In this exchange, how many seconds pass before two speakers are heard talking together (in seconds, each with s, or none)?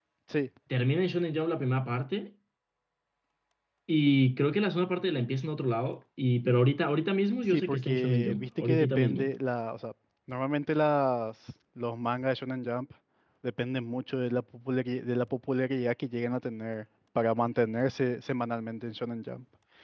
7.4 s